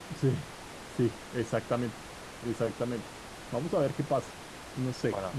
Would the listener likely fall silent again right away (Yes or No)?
Yes